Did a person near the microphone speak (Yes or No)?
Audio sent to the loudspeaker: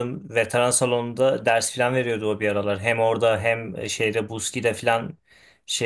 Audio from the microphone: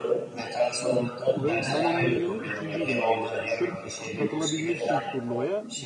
Yes